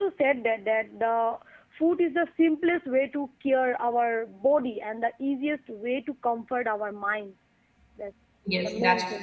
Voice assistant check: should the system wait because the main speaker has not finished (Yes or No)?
No